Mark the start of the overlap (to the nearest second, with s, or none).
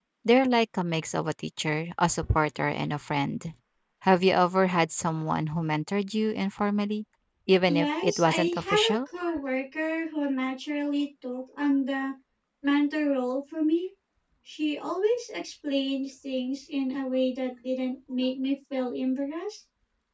8 s